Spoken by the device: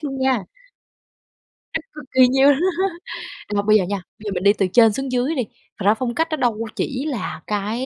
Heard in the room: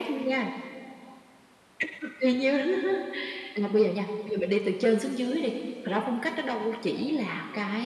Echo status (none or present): present